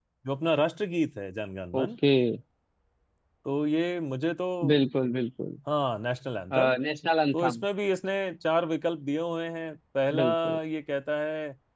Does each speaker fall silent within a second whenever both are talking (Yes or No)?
Yes